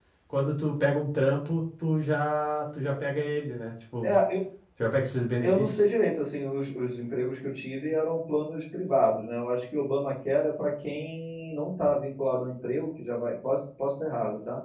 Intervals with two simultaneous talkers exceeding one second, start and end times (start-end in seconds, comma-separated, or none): none